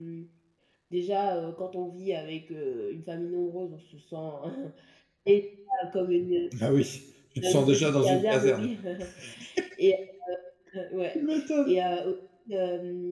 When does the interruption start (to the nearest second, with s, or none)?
7 s